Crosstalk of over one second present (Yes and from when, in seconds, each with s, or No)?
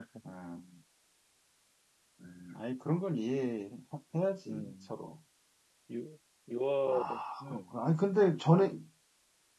No